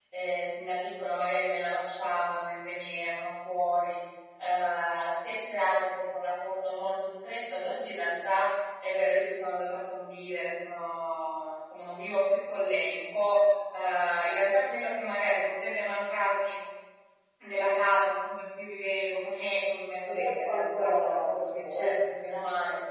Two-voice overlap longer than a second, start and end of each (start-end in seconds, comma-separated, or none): 20.1-21.9